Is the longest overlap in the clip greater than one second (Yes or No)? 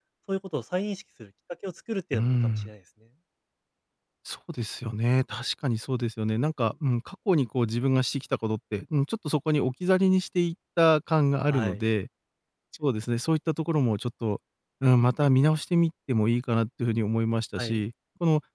No